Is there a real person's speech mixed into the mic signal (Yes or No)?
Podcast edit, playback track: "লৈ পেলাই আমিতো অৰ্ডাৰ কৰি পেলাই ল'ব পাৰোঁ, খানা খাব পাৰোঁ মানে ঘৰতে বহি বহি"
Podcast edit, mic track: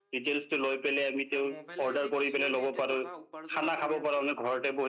Yes